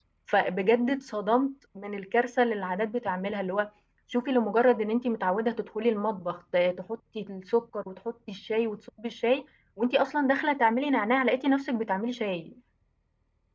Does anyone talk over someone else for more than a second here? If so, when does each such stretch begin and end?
none

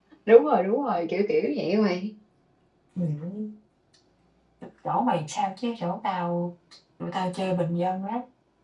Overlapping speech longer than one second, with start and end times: none

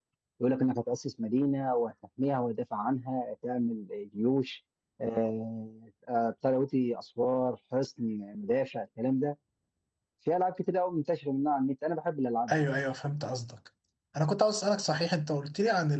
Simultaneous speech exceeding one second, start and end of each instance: none

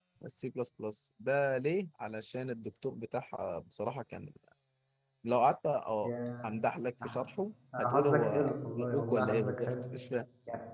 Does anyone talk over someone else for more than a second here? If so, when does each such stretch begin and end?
7.8-9.7

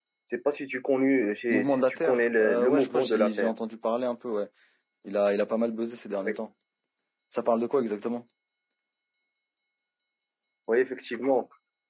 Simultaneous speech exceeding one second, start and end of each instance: 1.5-3.5

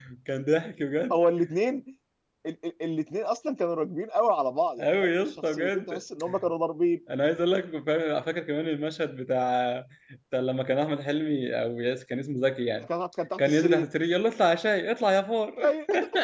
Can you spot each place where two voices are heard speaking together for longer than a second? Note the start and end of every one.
4.8-6.0

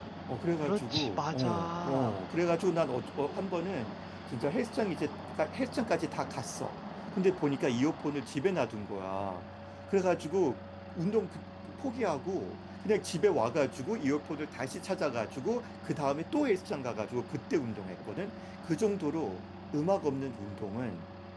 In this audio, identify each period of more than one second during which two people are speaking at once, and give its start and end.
0.6-2.2

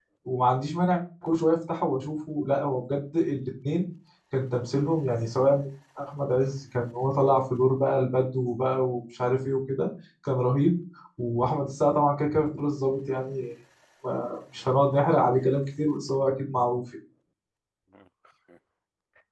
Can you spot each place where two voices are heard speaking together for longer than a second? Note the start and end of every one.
none

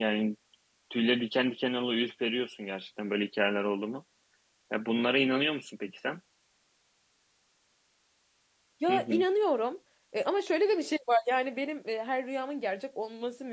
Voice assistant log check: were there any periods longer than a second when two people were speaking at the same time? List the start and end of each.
none

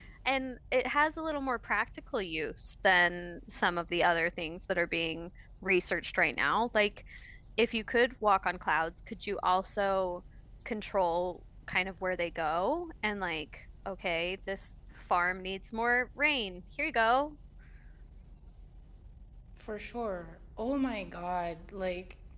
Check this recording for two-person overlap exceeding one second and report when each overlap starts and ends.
none

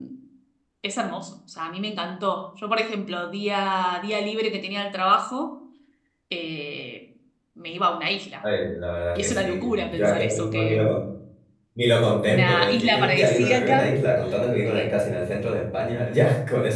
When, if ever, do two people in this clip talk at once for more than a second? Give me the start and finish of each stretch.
9.2-10.9, 12.2-13.9

